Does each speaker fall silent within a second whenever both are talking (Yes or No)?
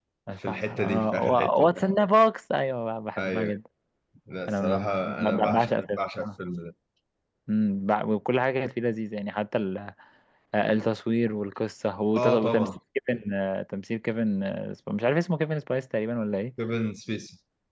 No